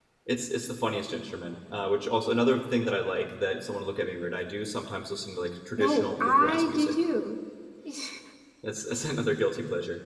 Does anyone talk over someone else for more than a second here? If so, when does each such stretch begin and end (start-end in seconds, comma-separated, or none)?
5.8-7.0